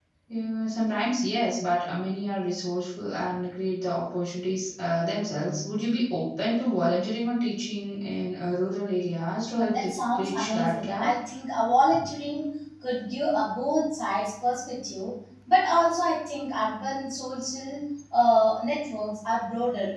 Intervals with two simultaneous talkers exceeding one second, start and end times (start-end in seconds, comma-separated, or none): 9.7-11.1